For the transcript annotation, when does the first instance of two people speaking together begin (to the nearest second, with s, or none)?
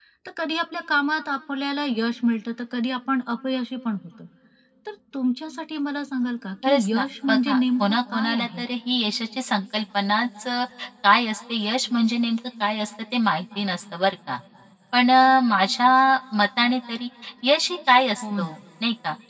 7 s